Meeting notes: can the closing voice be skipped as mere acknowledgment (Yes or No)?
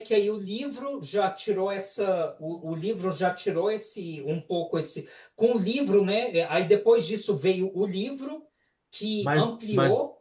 No